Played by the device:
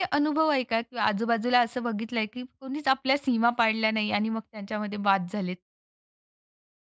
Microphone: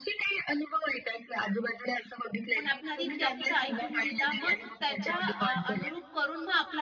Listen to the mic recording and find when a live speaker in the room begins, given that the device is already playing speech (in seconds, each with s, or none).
2.5 s